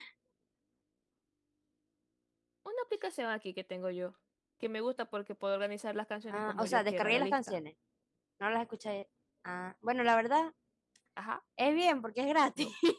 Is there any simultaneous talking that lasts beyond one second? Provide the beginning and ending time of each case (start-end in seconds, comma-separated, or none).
6.3-7.6